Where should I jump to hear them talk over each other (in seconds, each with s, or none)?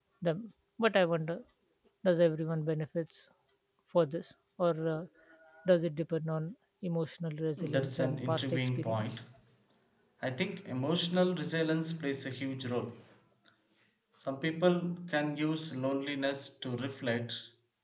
7.6 s